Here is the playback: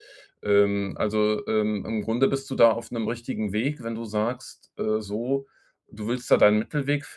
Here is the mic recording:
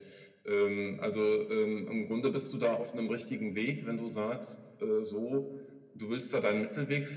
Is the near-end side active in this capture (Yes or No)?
No